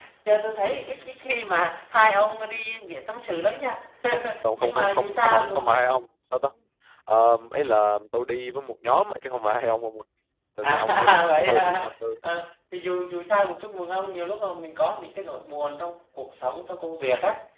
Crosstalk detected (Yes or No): Yes